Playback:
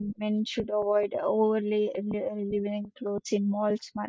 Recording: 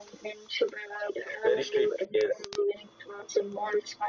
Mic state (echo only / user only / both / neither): both